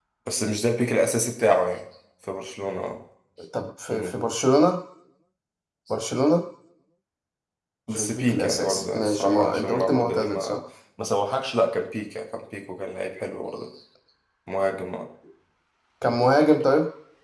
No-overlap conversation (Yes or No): No